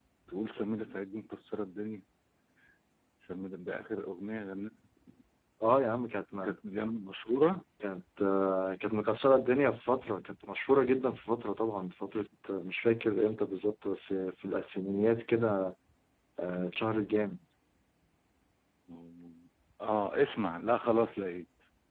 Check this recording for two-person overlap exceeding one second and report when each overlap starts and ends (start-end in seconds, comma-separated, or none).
none